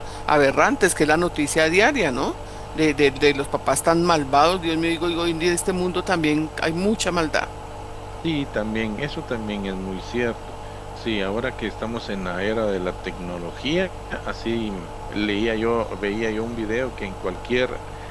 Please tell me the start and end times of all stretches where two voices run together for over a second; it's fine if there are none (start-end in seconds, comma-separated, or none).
none